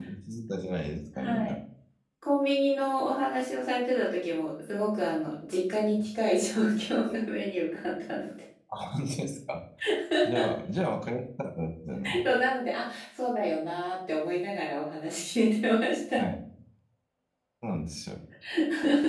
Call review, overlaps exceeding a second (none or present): none